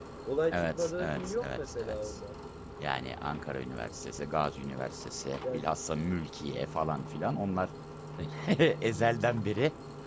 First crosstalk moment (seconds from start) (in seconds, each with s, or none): 0.5 s